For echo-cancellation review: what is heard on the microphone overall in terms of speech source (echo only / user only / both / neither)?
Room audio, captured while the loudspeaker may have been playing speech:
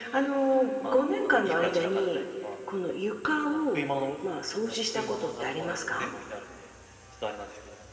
echo only